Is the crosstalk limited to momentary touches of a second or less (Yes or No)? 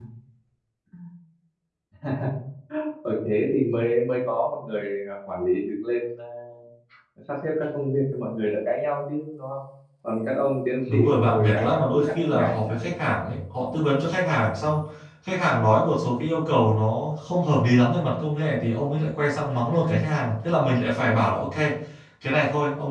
No